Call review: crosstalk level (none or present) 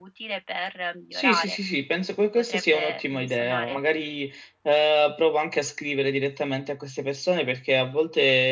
present